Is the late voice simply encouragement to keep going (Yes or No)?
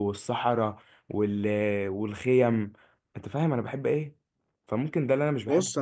No